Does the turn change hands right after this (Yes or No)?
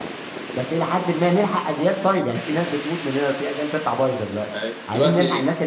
Yes